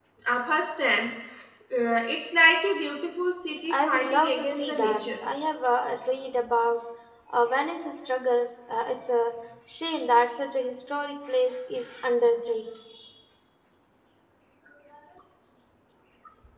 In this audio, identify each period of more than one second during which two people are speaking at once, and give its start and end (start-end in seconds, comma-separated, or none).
3.7-5.0